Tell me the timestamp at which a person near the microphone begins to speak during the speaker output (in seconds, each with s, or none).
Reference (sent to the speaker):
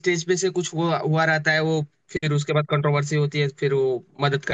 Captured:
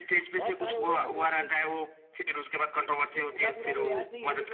0.3 s